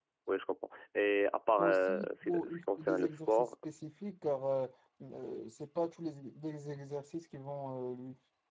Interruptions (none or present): present